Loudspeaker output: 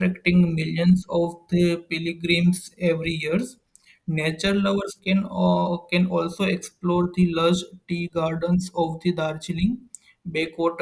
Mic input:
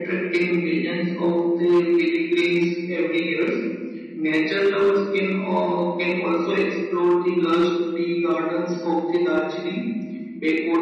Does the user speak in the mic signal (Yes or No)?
No